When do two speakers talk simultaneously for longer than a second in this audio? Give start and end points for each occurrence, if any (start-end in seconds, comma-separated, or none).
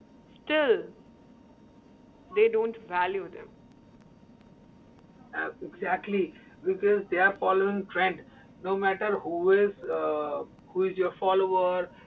none